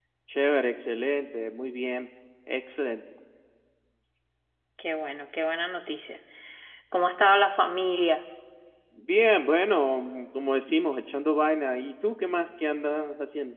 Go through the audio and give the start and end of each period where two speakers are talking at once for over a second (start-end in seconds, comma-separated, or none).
none